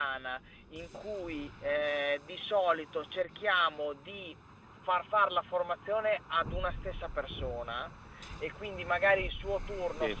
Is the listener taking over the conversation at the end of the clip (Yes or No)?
No